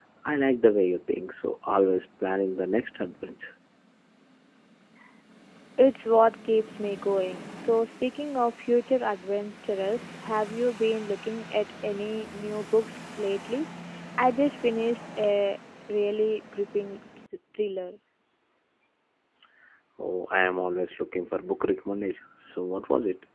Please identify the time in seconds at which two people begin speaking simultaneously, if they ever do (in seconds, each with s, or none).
none